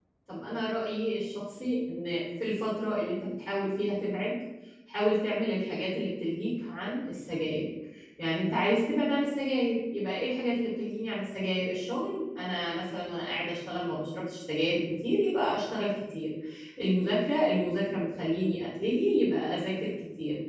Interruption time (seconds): none

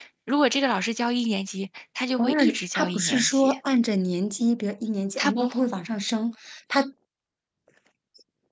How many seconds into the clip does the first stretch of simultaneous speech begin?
2.2 s

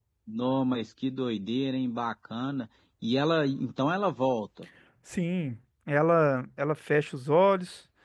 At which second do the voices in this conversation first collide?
none

